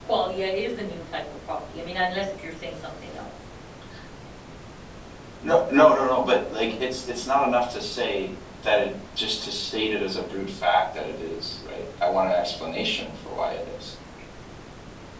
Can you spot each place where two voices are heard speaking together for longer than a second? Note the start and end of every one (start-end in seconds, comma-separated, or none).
none